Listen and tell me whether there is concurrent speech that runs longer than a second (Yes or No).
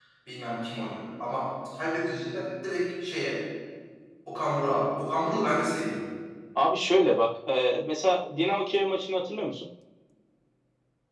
No